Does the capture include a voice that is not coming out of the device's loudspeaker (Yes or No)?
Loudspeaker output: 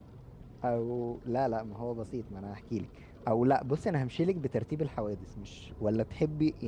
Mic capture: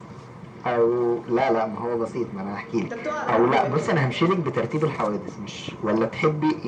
Yes